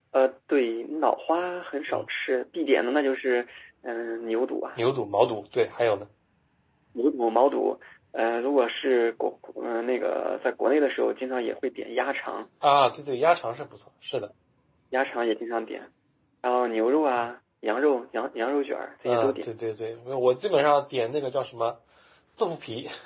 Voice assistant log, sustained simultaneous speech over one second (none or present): none